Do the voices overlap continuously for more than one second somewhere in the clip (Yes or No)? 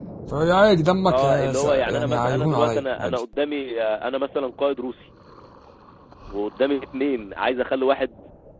Yes